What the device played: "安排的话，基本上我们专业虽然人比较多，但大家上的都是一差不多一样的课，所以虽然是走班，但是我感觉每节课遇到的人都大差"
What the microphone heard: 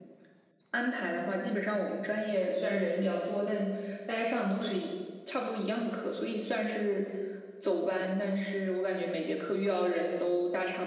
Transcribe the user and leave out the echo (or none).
none